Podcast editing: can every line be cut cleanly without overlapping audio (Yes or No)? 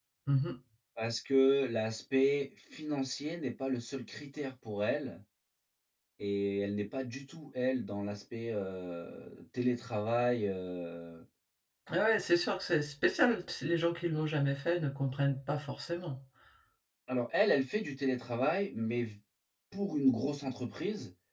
Yes